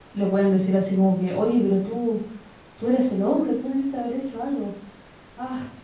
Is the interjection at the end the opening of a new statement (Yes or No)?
No